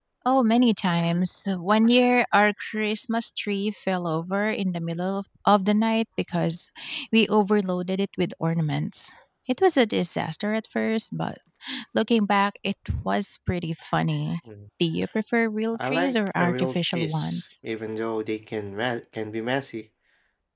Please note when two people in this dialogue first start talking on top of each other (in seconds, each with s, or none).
15.7 s